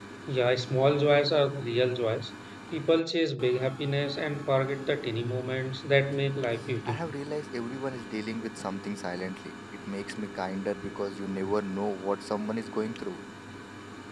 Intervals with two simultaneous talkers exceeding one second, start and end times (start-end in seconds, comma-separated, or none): none